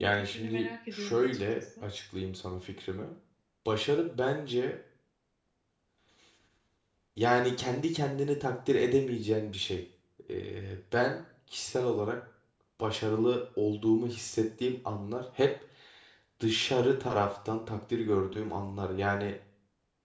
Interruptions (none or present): present